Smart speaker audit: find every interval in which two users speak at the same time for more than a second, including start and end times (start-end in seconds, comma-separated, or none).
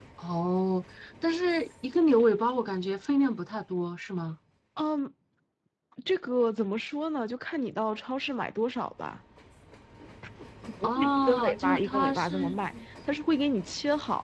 10.8-12.4